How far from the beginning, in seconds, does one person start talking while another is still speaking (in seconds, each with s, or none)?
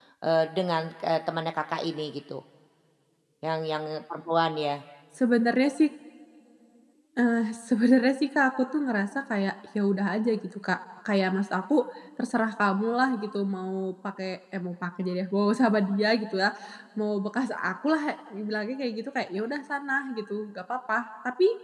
none